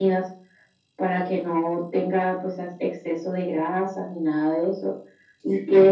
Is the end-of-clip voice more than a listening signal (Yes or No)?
No